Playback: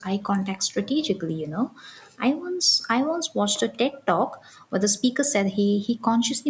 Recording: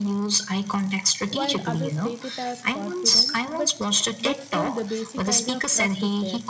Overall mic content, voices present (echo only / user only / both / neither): both